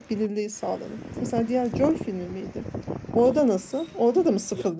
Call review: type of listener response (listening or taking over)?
taking over